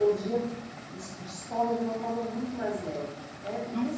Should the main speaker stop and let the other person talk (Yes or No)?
Yes